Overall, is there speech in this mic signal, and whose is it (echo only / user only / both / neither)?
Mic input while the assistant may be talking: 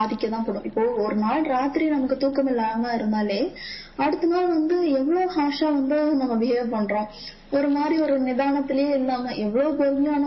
echo only